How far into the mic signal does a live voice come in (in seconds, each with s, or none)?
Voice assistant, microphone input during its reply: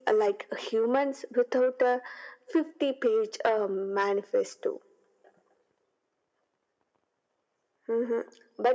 none